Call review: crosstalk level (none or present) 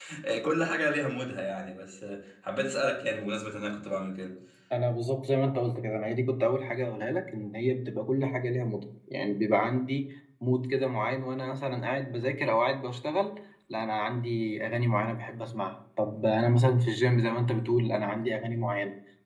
none